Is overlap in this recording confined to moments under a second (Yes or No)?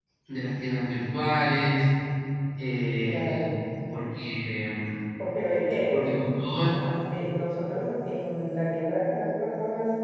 Yes